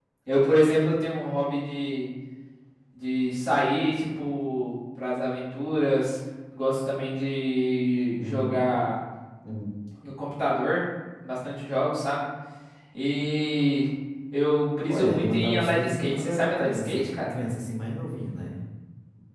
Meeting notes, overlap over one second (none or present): present